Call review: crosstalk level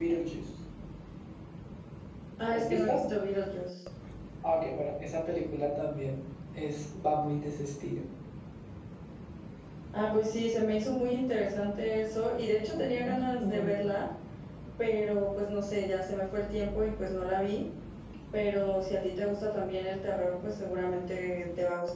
present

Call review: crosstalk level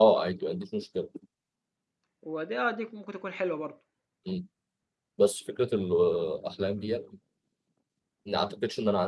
none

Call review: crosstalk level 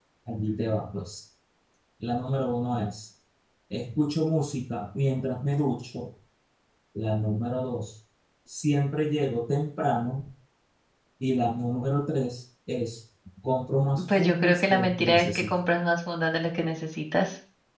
present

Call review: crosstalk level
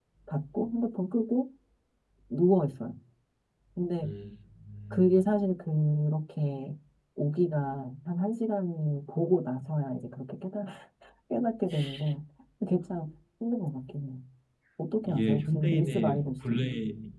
present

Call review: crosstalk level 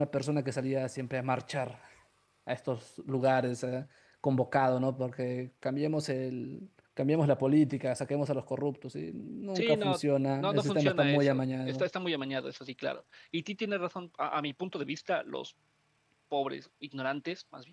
present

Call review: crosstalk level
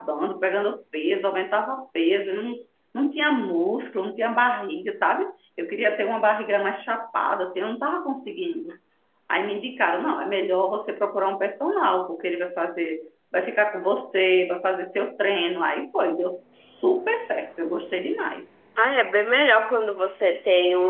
none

